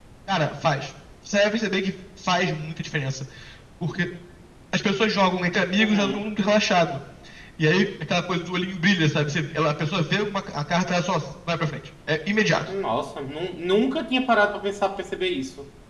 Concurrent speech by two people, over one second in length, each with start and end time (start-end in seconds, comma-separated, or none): none